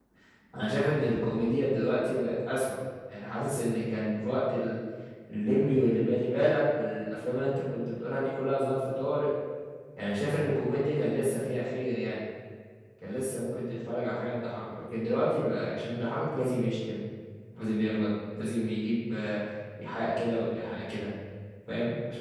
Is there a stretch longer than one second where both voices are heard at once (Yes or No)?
No